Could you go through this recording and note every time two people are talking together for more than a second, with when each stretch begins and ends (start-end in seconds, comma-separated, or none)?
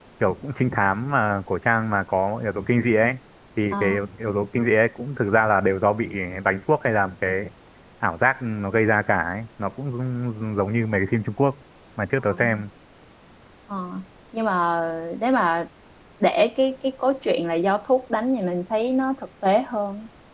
none